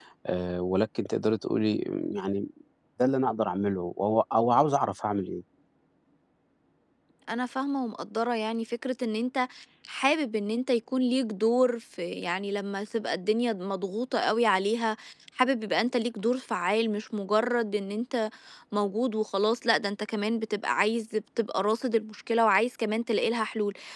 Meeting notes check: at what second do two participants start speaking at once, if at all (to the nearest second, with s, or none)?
none